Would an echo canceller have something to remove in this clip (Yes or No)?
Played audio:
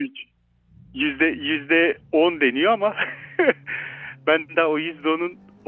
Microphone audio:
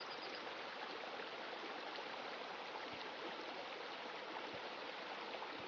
No